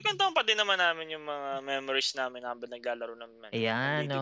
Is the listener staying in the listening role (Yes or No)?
No